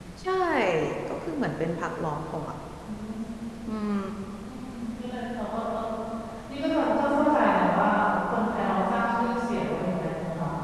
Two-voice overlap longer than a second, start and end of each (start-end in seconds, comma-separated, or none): none